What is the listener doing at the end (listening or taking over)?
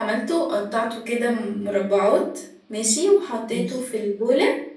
listening